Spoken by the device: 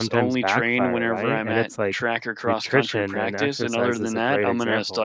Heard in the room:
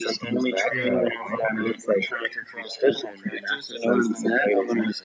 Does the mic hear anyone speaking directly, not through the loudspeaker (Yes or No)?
Yes